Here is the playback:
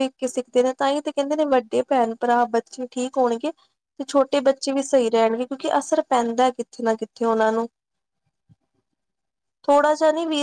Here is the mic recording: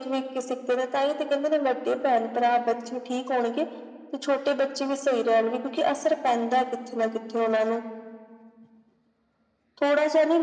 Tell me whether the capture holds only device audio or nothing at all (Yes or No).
Yes